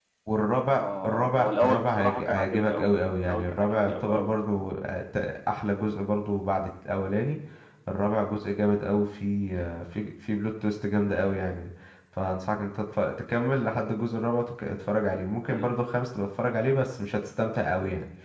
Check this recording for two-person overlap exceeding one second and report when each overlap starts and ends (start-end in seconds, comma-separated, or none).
0.8-4.3